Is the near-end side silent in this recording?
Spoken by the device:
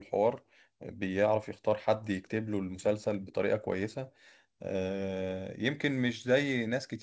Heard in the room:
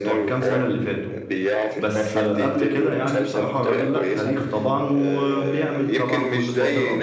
No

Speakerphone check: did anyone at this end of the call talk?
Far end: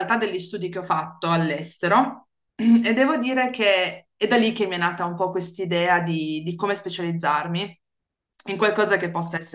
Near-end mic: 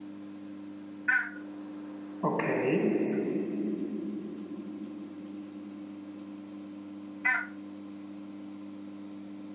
Yes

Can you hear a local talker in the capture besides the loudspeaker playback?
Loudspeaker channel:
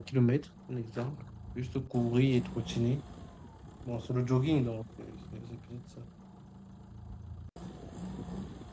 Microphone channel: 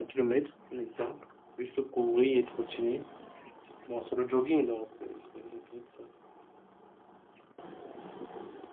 No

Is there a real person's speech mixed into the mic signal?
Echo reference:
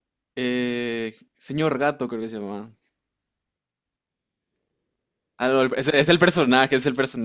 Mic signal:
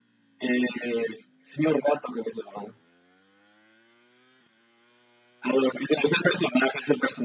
No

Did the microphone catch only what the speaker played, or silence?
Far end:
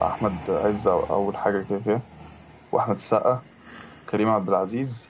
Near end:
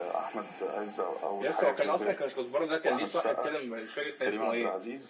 No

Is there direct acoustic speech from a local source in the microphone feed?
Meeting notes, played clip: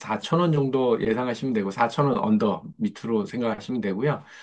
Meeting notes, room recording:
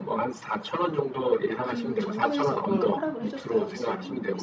Yes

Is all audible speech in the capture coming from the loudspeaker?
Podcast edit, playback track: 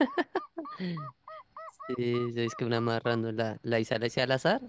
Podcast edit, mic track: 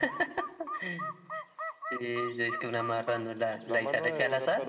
No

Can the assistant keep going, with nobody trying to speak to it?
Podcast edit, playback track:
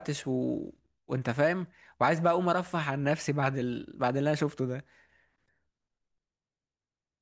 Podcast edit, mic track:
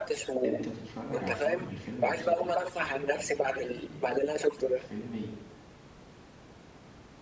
No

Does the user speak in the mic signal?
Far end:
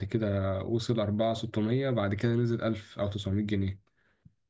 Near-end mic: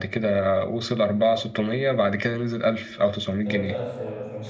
Yes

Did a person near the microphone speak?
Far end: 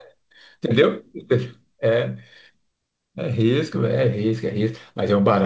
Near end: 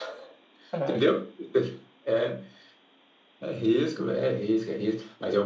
Yes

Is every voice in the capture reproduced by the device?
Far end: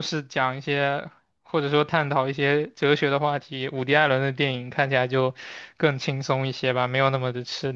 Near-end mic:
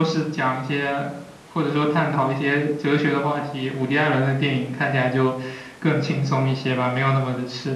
Yes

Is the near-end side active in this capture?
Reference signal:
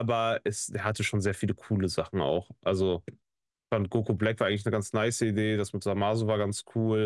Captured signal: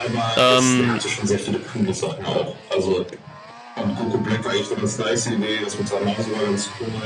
Yes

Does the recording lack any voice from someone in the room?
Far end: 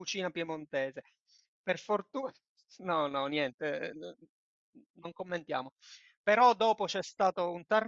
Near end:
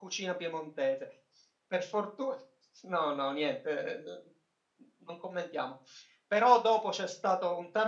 Yes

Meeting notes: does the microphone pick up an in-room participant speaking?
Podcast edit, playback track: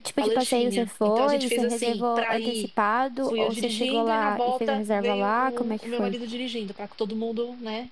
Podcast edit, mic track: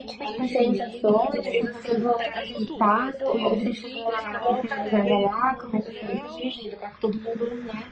Yes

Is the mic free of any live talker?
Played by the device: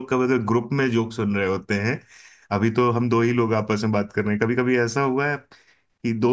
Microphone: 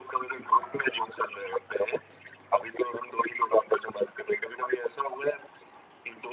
Yes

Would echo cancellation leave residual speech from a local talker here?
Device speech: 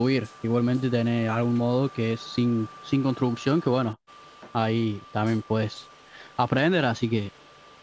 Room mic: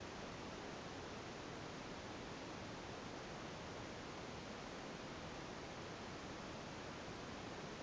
No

